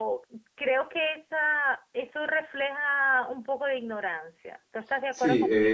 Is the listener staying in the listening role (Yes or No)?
No